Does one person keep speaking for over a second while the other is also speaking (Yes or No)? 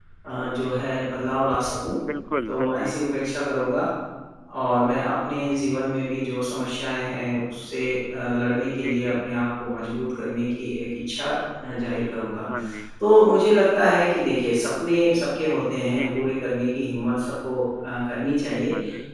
No